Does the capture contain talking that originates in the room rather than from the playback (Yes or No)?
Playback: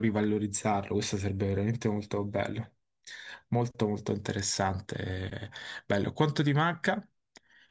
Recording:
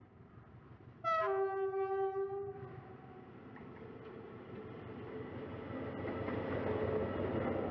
No